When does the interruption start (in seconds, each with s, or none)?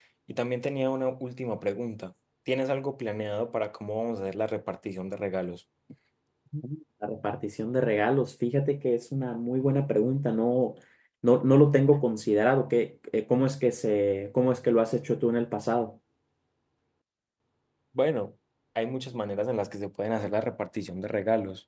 none